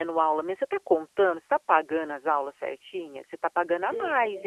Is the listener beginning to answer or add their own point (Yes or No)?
No